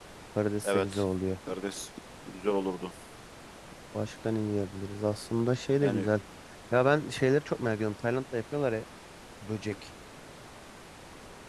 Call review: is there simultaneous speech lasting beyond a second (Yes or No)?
No